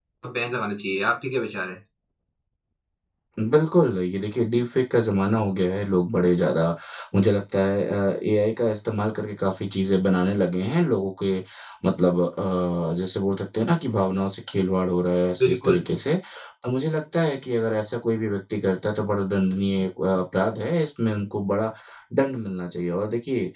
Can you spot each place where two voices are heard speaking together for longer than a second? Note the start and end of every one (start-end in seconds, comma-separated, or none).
none